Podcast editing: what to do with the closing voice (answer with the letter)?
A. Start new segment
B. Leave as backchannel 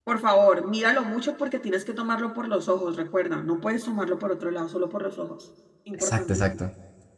A